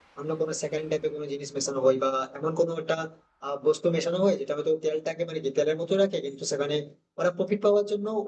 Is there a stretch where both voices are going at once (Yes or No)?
No